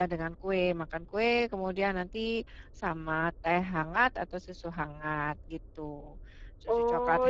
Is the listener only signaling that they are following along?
No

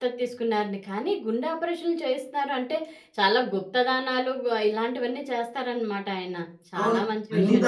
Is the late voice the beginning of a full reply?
Yes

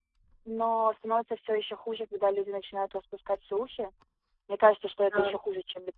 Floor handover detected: No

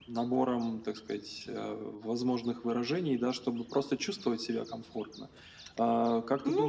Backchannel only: No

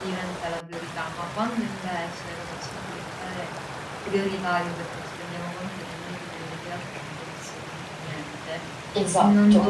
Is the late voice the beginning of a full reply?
No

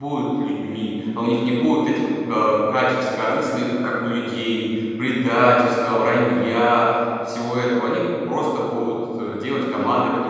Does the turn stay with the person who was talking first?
Yes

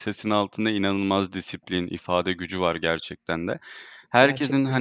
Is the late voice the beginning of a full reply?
No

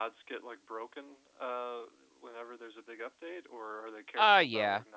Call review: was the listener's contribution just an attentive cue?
No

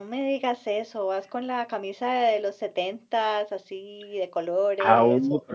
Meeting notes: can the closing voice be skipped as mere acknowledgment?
No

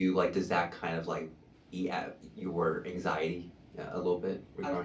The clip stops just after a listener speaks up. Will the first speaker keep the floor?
No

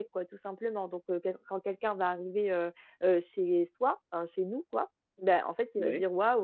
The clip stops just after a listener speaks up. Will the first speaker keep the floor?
Yes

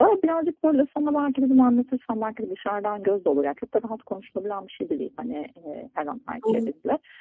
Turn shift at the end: No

